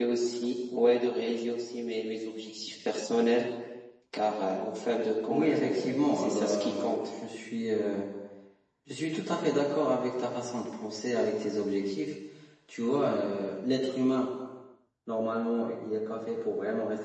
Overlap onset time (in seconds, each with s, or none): 5.3 s